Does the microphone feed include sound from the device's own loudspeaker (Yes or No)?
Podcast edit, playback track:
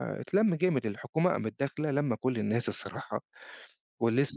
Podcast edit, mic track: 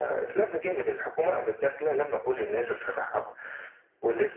Yes